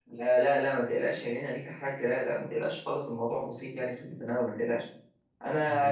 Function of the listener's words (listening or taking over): listening